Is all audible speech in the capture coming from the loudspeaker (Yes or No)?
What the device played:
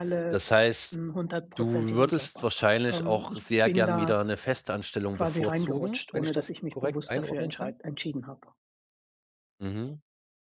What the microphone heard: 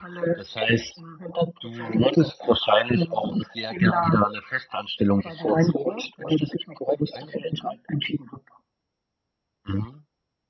Yes